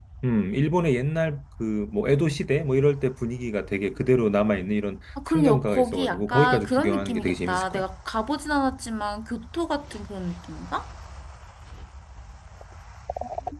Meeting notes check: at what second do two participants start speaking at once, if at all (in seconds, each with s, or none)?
5.2 s